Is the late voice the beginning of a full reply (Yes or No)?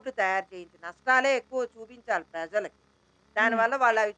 No